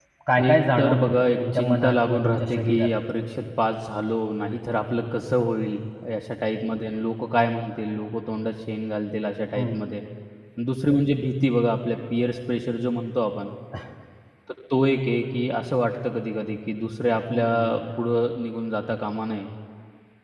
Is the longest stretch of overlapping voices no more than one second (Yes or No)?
No